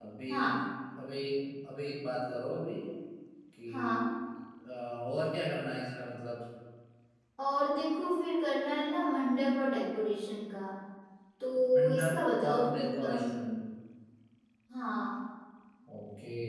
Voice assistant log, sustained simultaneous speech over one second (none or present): present